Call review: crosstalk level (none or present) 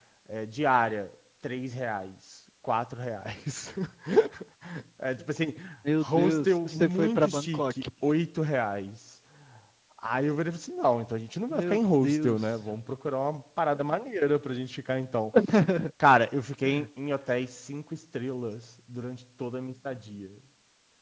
present